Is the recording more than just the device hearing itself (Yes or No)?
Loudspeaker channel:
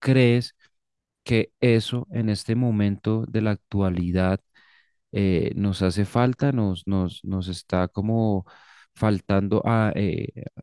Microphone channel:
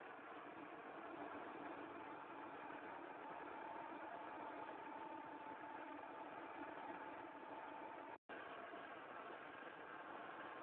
No